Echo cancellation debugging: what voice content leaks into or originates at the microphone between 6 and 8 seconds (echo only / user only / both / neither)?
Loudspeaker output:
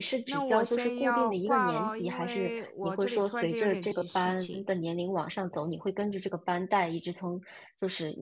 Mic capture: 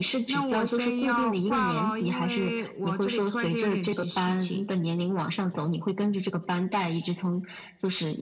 echo only